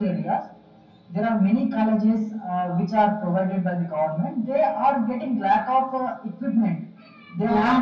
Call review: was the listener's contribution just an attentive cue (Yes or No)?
Yes